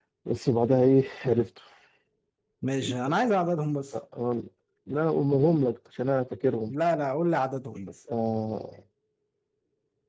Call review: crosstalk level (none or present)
none